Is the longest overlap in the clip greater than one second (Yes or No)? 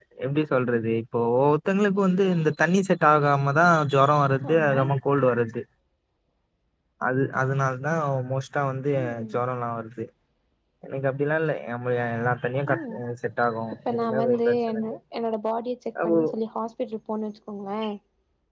Yes